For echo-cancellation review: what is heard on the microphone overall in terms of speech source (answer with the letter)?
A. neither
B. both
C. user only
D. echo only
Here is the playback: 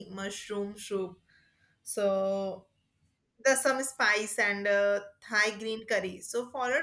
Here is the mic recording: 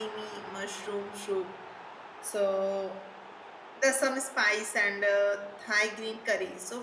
D